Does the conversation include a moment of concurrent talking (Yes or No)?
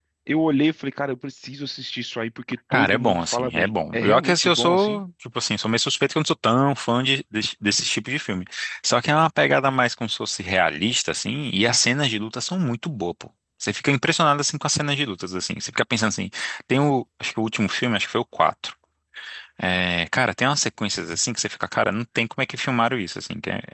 Yes